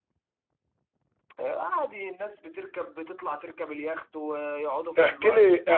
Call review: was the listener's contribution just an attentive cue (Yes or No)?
No